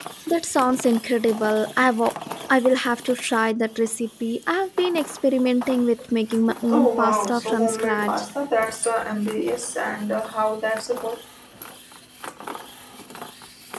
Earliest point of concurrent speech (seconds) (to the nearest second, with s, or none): 7 s